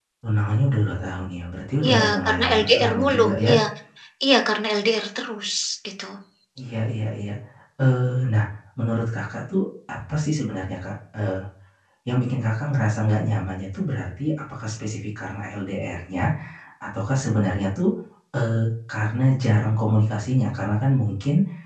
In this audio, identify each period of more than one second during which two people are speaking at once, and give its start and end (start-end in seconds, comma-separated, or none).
1.9-3.5